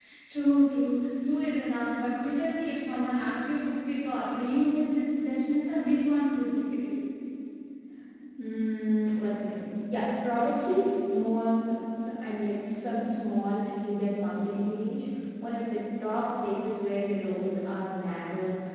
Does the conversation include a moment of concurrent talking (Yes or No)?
No